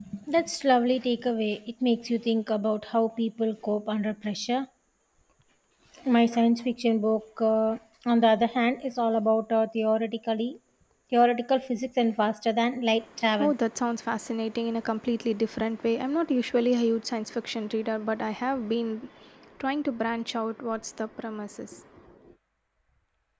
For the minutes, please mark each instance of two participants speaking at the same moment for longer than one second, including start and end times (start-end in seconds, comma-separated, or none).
none